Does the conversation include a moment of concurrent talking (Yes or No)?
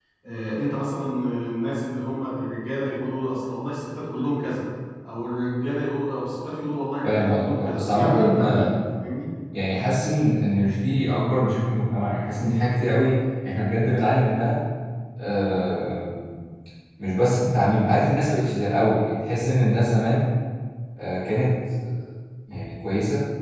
Yes